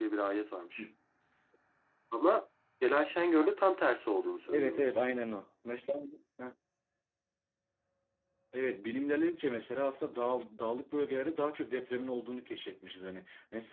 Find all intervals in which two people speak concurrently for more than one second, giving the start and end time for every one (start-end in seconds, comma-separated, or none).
none